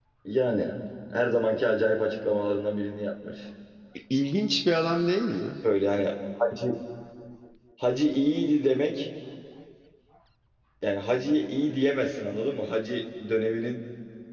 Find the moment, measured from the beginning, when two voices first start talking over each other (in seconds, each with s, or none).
none